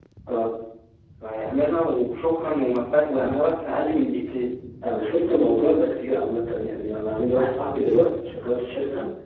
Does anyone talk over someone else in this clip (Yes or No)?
No